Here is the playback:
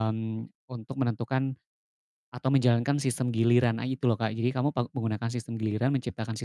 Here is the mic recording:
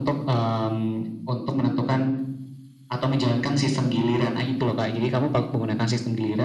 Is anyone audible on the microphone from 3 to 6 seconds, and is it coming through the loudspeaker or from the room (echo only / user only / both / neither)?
echo only